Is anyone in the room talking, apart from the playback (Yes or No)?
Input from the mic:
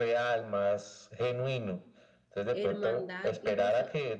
Yes